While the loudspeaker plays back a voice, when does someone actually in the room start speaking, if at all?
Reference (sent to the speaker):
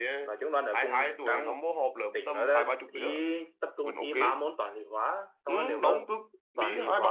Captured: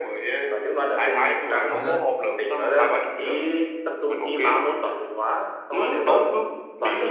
1.6 s

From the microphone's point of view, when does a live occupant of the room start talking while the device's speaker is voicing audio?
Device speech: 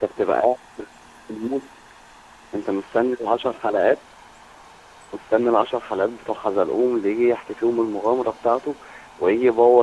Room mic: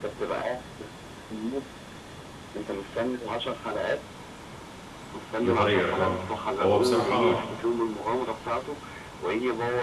5.4 s

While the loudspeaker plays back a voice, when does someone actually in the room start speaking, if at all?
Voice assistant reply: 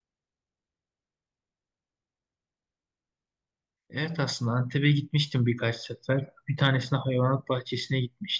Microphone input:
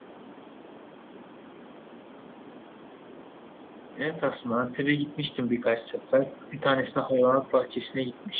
none

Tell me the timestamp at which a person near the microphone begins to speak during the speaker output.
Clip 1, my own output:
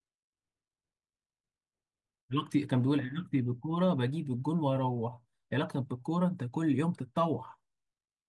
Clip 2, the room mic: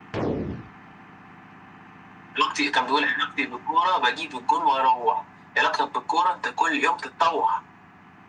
none

